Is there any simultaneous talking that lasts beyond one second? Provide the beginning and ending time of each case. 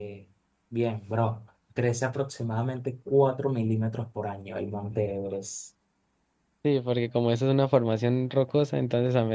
none

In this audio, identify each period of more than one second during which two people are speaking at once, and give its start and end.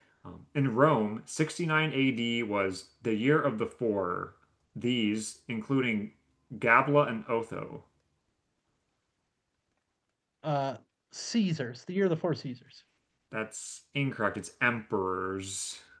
none

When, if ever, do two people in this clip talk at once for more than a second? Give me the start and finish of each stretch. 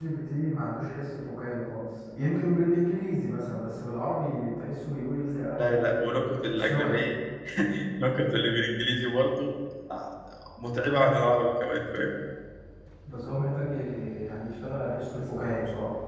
5.6-7.0

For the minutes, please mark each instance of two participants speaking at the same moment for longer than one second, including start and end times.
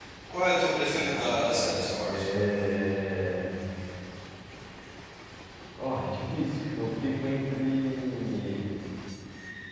0.9-2.2

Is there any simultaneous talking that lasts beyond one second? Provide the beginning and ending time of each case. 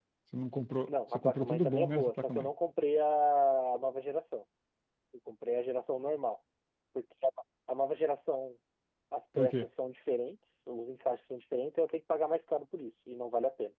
0.9-2.5

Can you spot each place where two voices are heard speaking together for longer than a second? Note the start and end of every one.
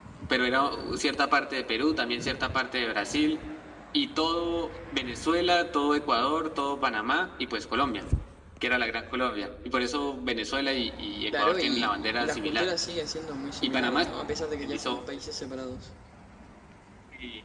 11.4-12.7

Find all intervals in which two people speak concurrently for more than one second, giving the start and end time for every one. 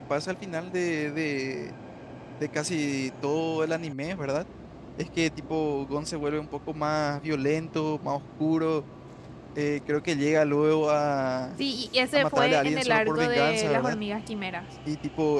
12.1-14.0

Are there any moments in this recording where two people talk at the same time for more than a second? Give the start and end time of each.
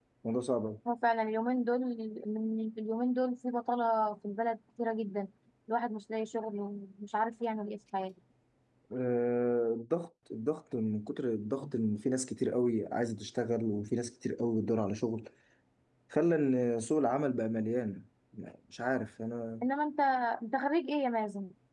none

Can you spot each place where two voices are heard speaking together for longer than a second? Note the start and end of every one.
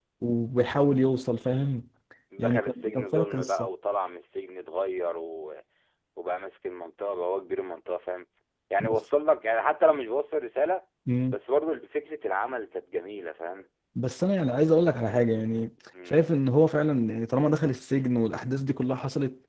2.4-3.7

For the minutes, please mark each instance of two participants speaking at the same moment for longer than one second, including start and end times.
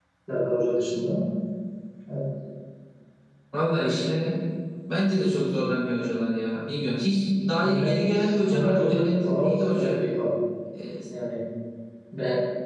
8.5-9.9

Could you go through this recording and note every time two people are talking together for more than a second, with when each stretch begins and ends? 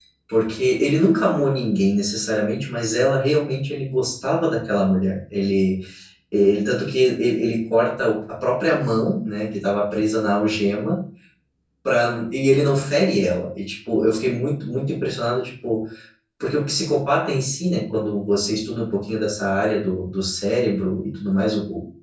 none

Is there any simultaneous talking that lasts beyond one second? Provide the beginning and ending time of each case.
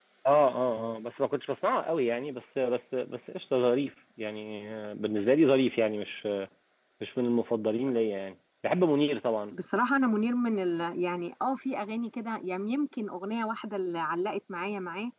none

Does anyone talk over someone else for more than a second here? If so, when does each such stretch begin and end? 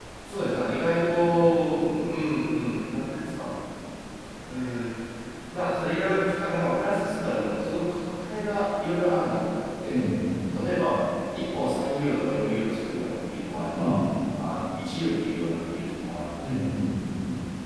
none

